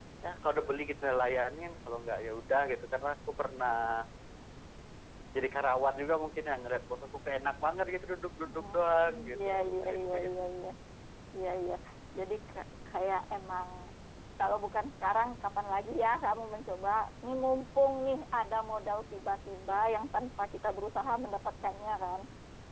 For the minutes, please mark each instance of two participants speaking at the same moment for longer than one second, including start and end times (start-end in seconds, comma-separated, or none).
8.4-10.5